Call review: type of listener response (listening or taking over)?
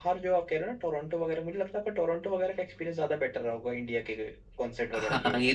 taking over